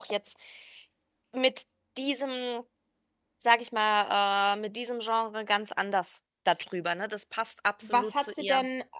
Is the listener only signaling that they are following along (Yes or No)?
No